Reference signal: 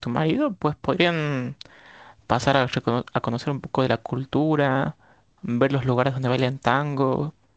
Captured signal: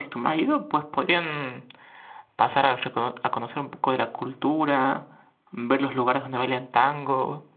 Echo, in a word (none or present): present